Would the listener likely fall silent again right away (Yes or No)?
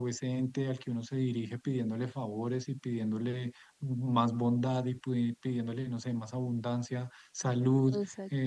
Yes